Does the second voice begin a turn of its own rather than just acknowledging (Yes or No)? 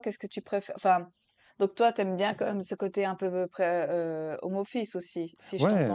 Yes